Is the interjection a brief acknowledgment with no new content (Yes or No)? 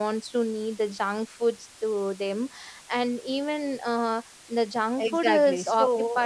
No